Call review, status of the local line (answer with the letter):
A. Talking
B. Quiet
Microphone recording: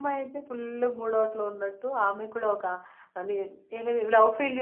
A